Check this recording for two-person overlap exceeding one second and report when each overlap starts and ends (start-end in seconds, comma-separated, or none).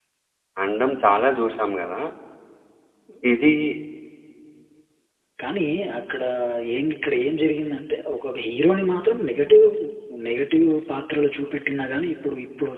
none